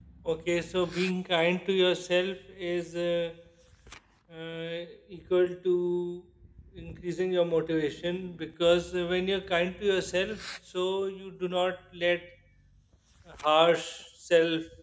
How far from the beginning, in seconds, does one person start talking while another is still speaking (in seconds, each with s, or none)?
none